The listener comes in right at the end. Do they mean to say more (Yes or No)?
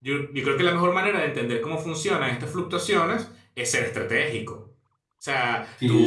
Yes